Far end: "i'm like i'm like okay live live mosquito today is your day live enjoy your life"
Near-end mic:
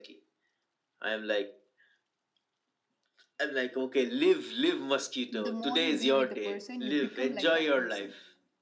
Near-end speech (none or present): present